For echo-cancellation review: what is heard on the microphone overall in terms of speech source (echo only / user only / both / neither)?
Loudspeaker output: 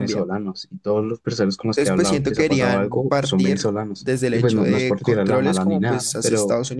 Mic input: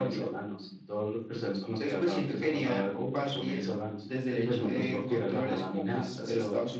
echo only